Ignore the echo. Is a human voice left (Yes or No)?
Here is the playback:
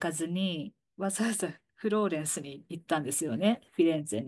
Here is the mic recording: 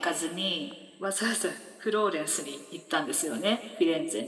No